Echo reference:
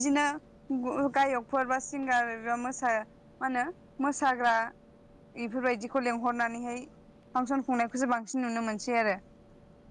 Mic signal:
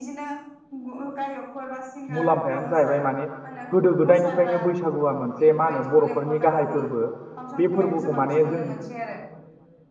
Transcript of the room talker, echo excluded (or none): मुलाम्फायानो जाहैबाय माने गोदो गोदायनिफ्रायनो बैसागुआ मोनसे मा ओनो बर'फोरनि गाहाय फोरबो। बे फोरबोखौ माने जों